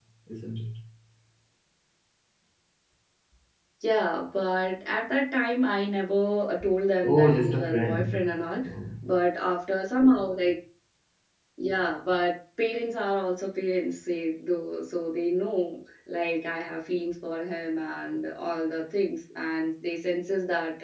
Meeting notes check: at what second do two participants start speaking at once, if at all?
7.0 s

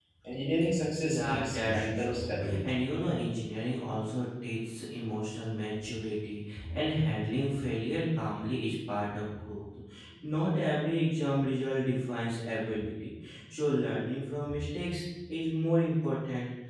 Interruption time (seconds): 1.0 s

